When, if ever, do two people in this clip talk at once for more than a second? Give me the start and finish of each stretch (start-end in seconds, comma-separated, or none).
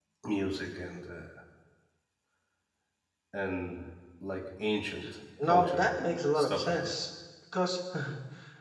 5.4-7.0